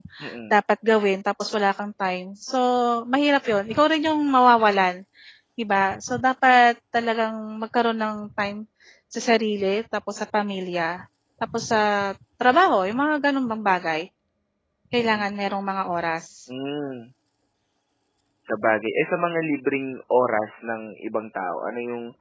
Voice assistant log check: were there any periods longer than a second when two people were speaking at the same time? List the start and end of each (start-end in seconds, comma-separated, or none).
none